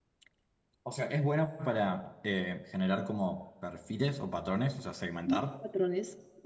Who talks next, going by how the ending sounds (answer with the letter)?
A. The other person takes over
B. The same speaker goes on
A